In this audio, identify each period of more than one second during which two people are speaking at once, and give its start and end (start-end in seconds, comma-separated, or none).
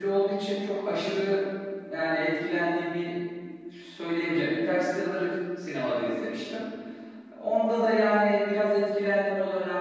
none